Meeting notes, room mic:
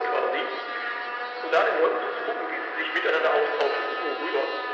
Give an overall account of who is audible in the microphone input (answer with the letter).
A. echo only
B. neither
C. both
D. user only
A